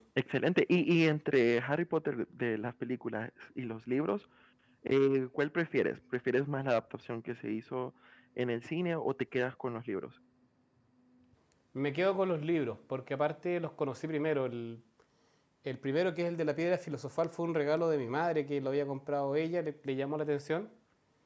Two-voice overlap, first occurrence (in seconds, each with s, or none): none